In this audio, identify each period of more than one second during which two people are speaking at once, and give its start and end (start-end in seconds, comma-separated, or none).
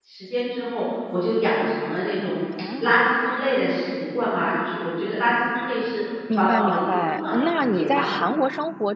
6.4-8.1